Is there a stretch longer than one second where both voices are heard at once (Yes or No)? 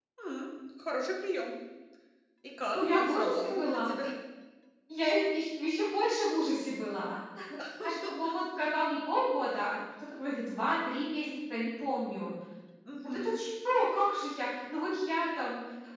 Yes